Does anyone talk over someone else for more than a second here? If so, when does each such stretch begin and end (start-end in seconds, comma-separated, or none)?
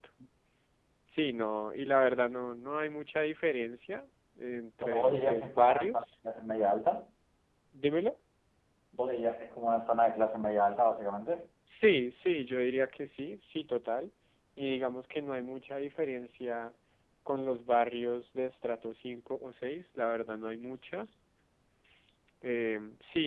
4.8-6.0